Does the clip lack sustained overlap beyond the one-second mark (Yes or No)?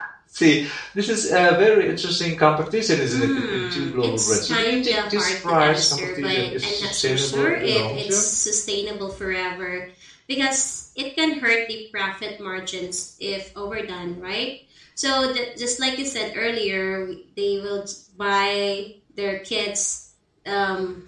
No